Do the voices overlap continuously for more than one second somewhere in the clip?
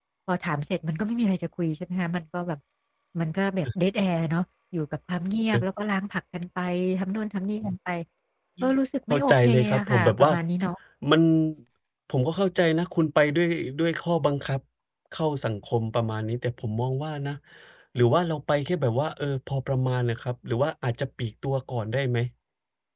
Yes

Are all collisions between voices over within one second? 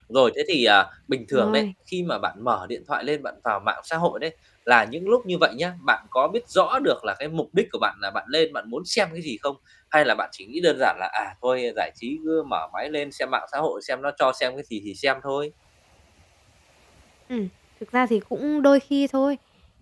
Yes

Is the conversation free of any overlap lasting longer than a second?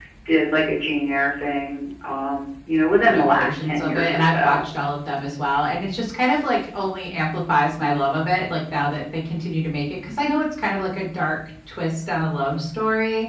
No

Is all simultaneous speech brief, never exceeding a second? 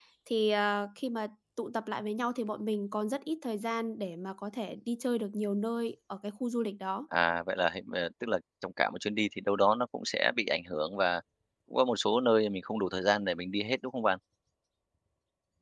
Yes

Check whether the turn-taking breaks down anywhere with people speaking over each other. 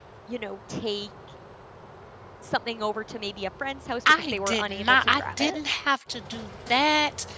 Yes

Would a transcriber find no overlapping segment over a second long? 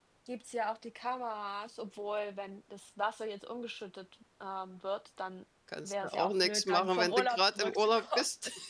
No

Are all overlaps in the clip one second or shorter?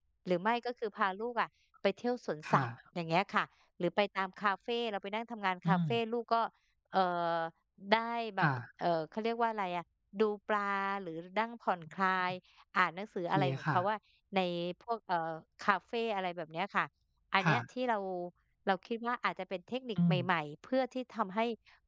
Yes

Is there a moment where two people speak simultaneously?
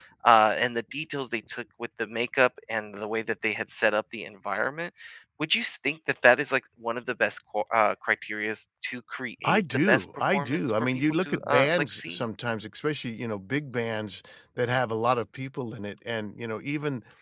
Yes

